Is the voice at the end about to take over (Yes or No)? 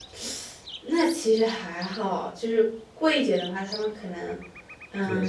Yes